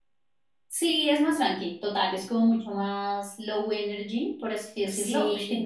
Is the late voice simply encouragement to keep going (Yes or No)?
Yes